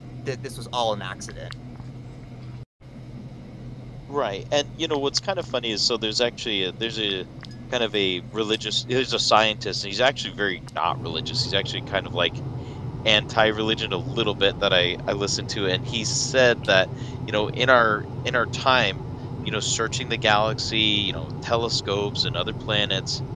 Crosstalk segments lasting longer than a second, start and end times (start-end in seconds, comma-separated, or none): none